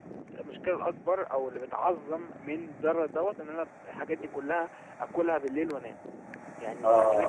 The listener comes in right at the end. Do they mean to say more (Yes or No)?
Yes